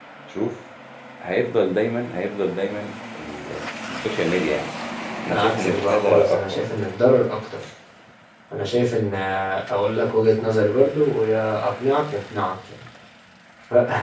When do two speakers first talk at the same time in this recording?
5.3 s

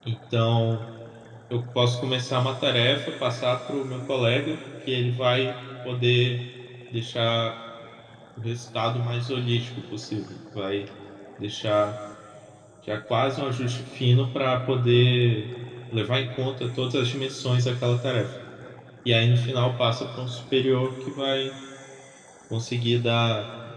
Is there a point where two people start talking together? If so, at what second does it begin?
none

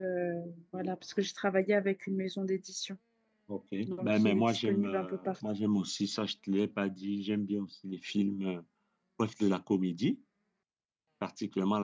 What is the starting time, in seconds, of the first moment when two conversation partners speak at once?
3.9 s

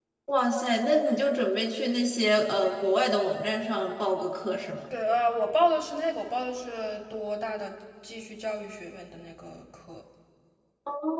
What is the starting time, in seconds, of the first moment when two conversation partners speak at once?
none

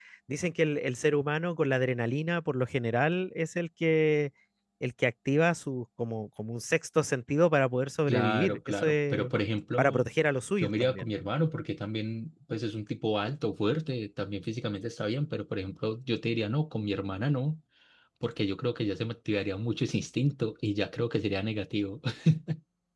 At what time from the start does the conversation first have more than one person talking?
8.1 s

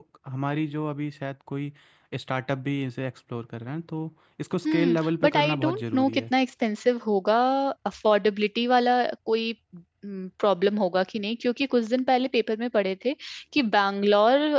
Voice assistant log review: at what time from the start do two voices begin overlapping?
4.6 s

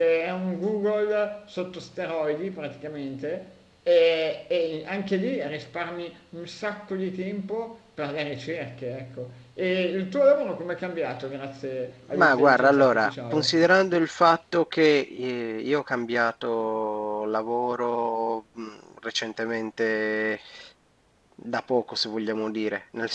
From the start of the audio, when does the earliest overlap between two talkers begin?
12.1 s

